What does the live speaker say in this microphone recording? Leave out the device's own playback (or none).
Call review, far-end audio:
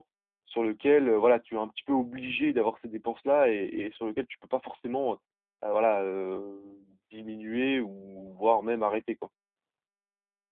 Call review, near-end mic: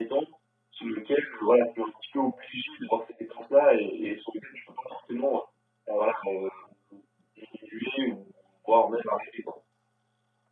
none